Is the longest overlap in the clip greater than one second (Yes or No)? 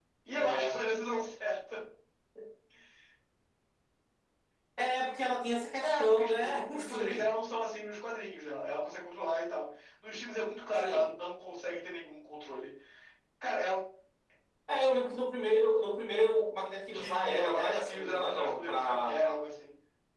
Yes